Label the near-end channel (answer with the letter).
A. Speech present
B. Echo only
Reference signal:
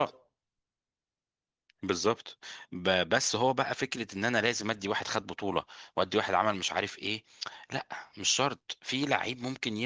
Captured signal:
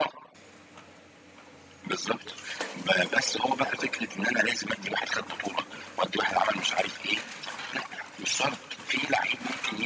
B